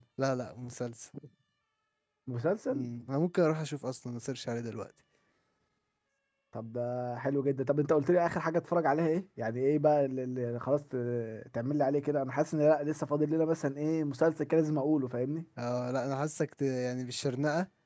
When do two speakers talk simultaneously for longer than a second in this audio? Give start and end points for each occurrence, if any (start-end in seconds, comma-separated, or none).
none